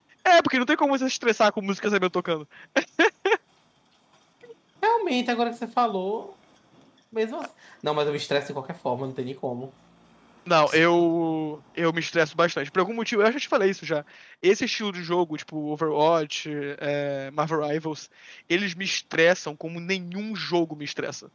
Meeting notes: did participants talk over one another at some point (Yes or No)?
No